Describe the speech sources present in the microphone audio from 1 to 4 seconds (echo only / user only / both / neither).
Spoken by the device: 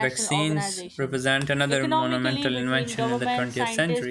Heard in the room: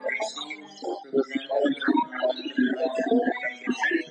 echo only